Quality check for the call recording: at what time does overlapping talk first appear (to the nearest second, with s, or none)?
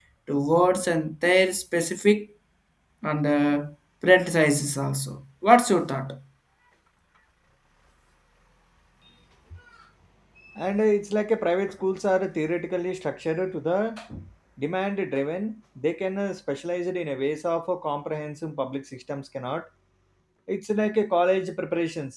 none